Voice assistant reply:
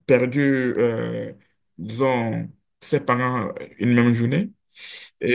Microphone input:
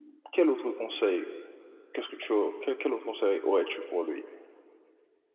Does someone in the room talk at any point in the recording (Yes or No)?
Yes